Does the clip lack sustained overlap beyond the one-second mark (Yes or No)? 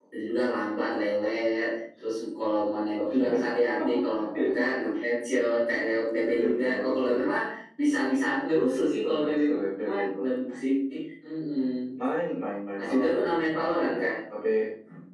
No